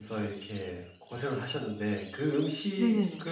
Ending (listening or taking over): listening